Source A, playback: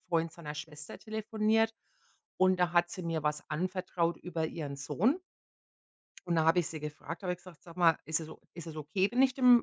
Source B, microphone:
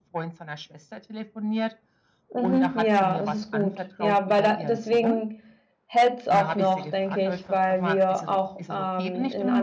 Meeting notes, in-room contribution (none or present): present